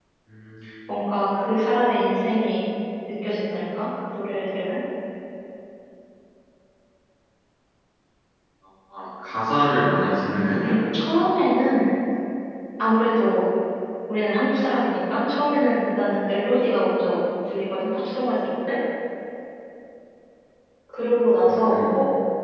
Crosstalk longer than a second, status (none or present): none